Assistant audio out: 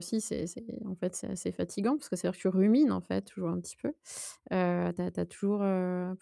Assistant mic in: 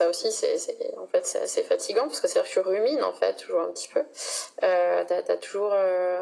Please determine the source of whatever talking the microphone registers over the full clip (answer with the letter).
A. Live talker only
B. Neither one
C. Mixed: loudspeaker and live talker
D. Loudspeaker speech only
D